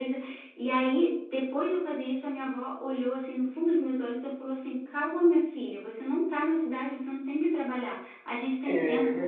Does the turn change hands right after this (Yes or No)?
No